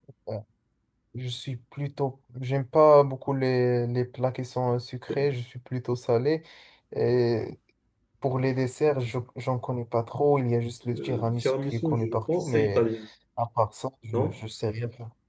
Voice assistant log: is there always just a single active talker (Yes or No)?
No